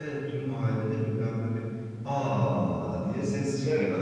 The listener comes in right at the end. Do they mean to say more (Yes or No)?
Yes